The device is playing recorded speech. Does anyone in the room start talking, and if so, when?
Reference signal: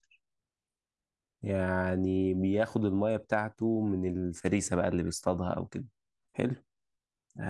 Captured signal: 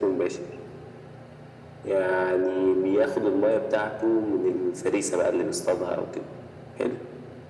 none

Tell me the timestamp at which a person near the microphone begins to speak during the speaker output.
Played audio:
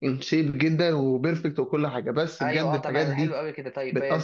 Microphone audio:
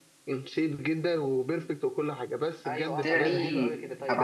3.0 s

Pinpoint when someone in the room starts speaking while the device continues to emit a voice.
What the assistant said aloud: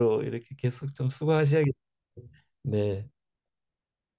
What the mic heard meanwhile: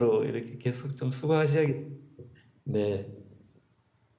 none

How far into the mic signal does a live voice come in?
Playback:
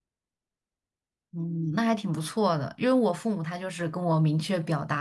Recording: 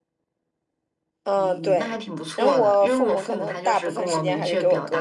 1.2 s

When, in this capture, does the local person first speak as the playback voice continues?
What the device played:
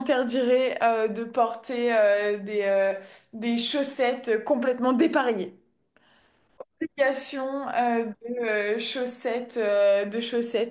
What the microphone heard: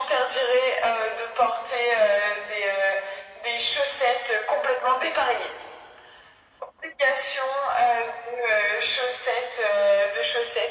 none

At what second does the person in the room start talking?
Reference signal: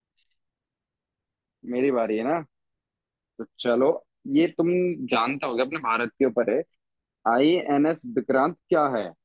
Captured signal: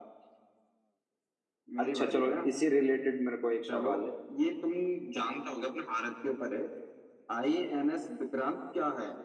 1.8 s

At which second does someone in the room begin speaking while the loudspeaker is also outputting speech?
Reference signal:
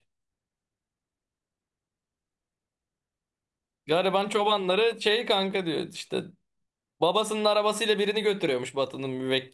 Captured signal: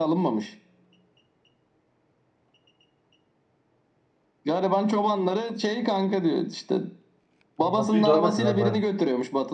7.6 s

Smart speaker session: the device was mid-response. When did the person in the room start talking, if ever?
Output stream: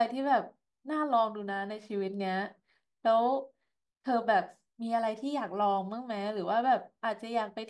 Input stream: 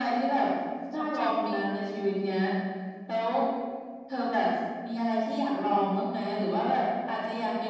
0.9 s

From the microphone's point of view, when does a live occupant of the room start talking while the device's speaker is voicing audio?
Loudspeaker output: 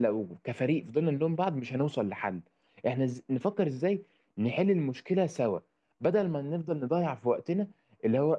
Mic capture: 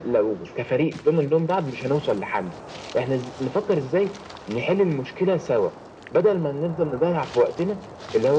none

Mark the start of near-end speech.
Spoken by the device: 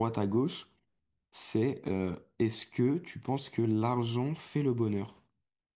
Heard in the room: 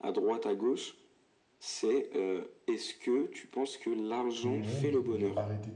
4.3 s

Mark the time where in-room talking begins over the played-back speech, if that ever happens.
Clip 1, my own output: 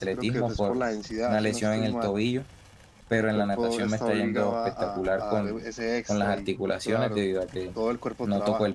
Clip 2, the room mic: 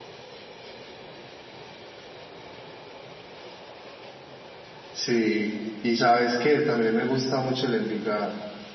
4.9 s

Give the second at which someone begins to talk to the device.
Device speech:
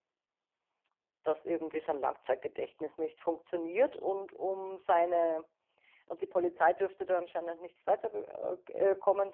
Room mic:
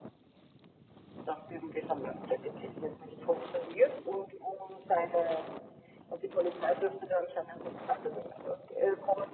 none

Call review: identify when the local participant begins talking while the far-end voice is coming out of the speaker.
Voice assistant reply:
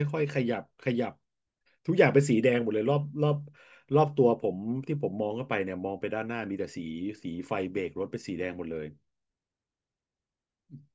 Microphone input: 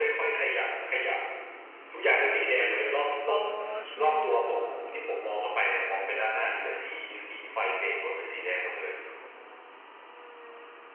3.2 s

